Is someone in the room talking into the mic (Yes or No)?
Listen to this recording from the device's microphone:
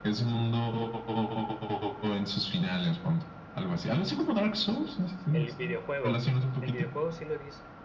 Yes